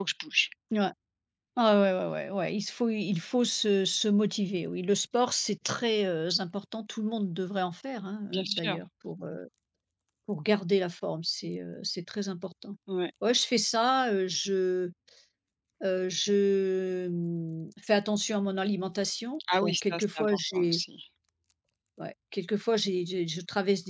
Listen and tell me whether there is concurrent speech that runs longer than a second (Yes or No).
Yes